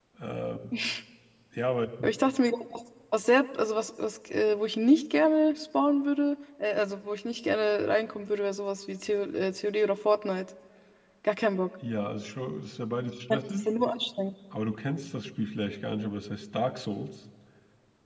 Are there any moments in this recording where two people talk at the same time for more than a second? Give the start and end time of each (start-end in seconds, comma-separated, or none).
none